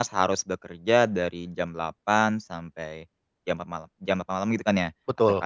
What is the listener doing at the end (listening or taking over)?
listening